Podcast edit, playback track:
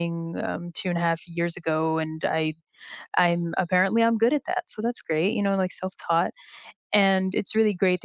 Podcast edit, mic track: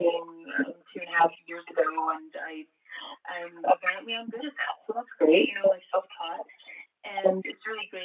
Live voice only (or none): none